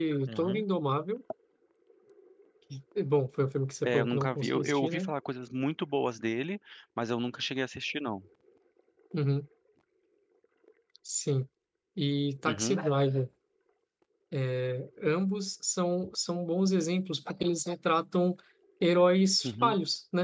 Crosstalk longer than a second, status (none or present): present